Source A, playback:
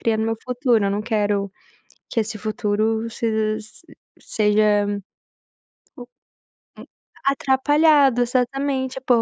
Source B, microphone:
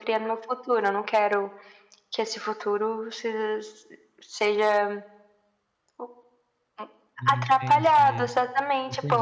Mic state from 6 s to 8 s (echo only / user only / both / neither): both